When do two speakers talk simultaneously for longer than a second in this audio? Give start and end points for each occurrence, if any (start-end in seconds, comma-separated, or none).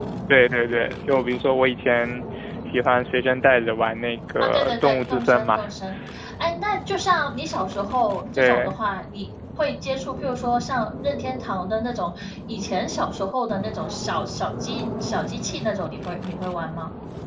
4.4-5.6